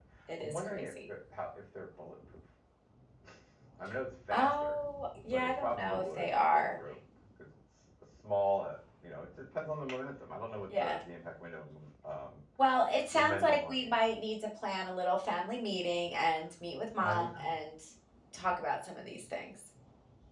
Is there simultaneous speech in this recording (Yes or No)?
Yes